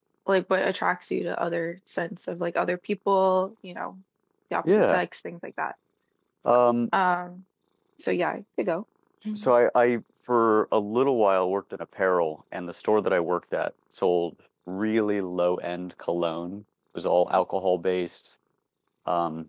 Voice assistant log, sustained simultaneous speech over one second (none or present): none